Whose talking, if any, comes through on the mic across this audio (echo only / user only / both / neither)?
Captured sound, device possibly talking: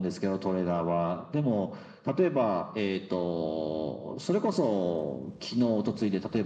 echo only